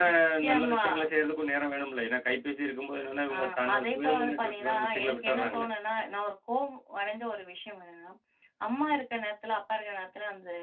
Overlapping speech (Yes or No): Yes